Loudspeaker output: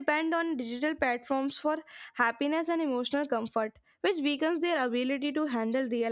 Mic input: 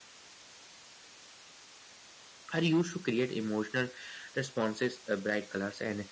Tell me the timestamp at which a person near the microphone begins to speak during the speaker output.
2.5 s

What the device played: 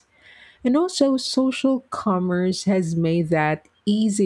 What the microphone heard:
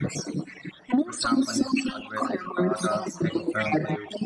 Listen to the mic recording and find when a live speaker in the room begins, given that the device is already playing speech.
1.0 s

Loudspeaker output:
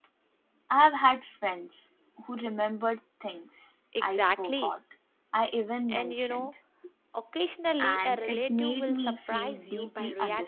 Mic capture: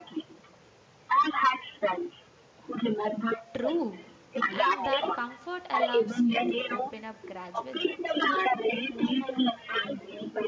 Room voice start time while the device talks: 3.6 s

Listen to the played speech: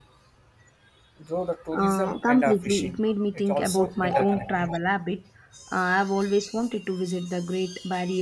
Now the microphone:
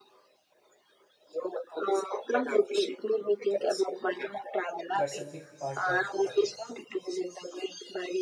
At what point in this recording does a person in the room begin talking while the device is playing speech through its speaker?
4.9 s

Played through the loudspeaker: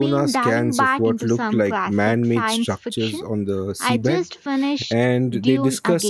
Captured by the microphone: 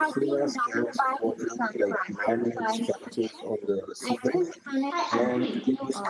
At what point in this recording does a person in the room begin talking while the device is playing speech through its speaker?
4.9 s

